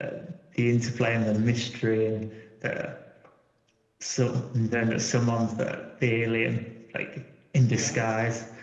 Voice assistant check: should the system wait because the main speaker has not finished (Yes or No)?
Yes